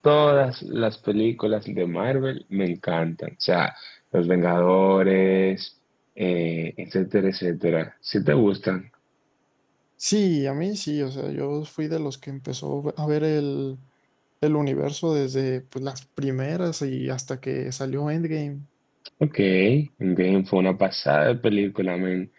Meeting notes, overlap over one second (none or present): none